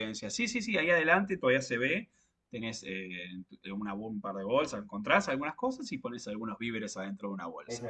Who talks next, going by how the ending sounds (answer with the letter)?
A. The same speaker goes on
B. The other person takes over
B